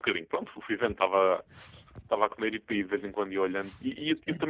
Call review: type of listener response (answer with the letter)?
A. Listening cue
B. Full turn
A